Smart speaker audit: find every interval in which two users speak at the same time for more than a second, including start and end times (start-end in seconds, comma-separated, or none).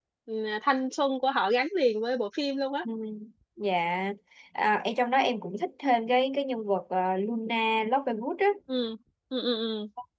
none